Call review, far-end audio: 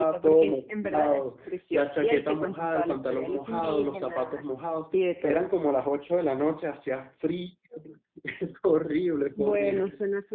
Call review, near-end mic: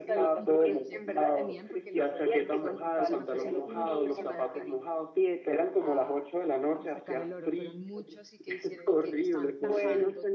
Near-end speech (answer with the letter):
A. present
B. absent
A